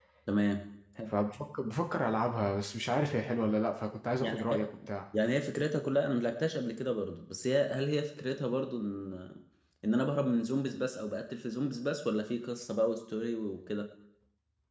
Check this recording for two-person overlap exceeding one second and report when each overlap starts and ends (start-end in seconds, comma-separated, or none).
none